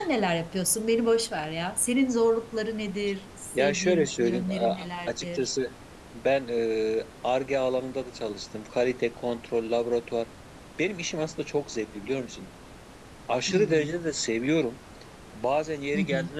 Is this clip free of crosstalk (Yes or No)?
No